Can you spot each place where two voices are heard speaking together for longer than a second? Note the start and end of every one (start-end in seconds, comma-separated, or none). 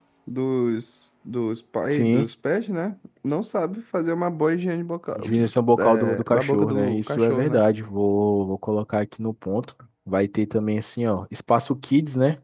5.8-7.6